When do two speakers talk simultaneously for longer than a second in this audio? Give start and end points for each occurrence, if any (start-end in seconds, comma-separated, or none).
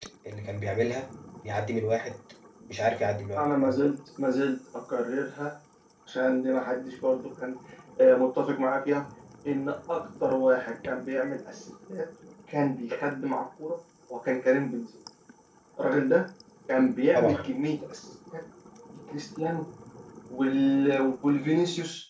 none